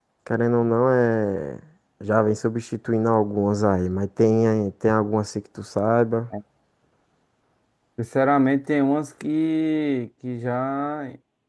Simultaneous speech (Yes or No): No